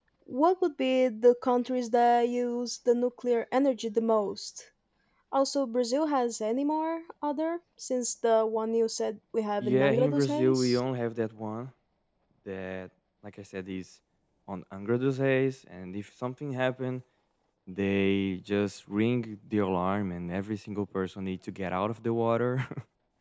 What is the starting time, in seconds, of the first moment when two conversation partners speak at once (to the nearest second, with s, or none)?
10 s